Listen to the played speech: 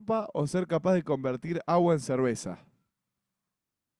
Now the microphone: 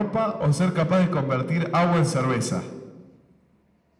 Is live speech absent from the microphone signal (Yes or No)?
Yes